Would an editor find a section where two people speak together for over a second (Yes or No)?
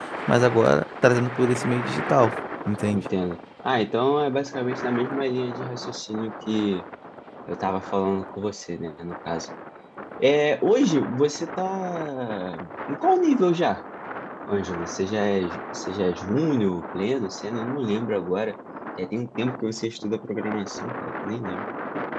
No